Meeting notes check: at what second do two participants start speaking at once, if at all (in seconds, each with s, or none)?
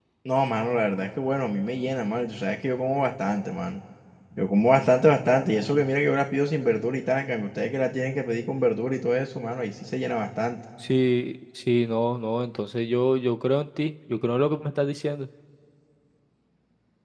none